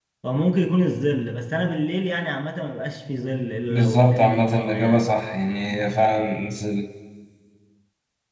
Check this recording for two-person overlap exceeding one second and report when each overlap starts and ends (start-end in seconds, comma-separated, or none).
3.7-5.2